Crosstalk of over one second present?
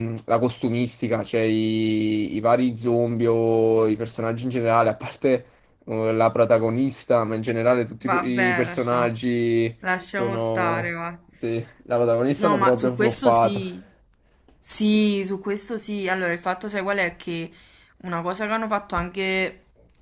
Yes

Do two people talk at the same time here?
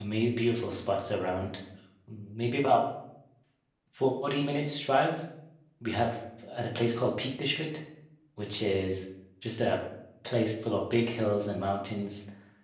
No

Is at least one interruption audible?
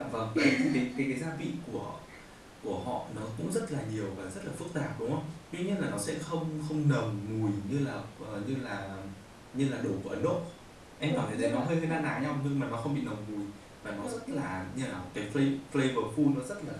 Yes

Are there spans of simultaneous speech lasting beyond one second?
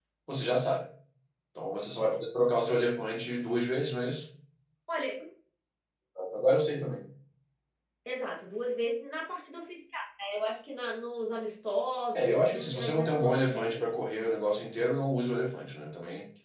Yes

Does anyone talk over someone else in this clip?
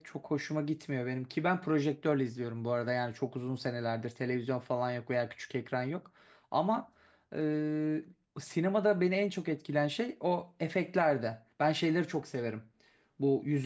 No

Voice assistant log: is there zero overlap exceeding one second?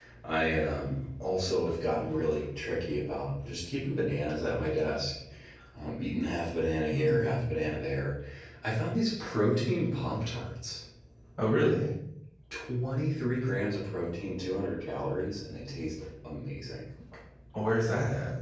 Yes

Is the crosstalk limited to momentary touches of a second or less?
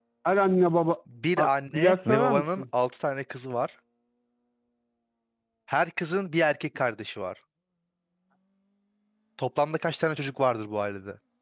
No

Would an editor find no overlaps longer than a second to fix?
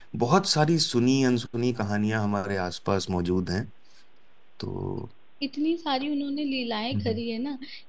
Yes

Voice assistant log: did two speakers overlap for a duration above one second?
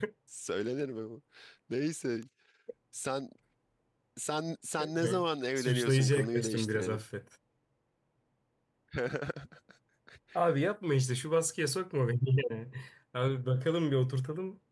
Yes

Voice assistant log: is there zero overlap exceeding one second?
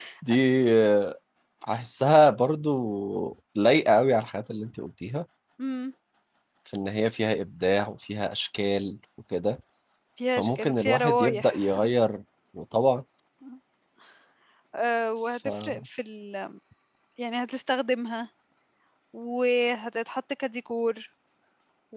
No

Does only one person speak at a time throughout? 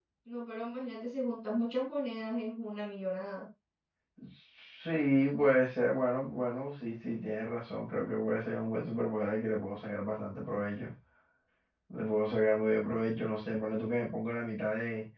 Yes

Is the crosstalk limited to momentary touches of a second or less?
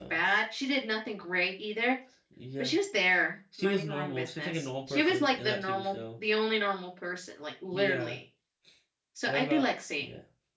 No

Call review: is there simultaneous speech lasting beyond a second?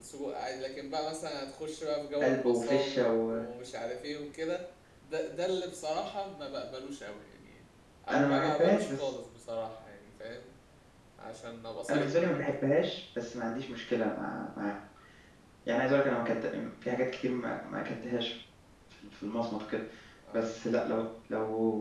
Yes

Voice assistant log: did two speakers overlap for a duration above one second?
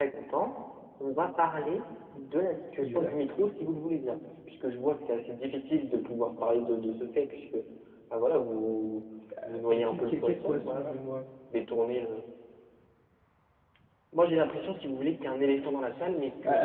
Yes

